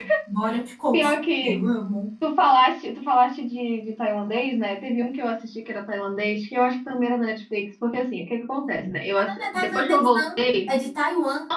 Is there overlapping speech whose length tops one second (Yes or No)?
Yes